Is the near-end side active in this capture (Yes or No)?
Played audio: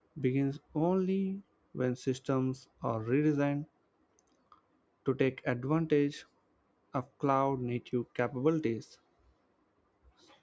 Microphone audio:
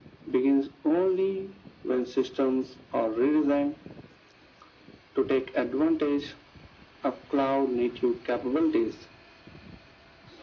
No